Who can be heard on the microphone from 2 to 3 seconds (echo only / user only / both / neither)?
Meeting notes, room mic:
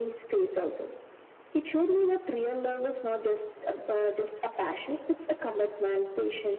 echo only